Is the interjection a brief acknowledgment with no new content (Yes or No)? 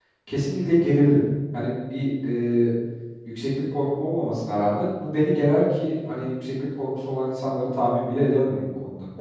No